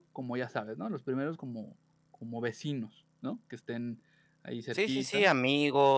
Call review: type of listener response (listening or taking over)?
taking over